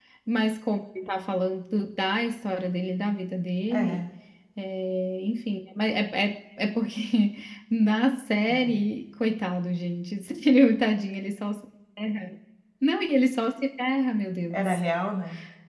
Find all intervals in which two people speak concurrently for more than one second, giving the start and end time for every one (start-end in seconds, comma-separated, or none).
none